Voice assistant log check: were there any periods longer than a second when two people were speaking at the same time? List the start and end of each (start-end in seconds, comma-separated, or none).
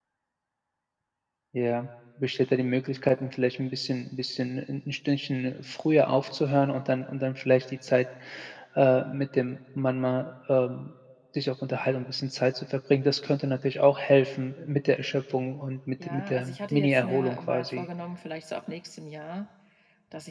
16.0-17.8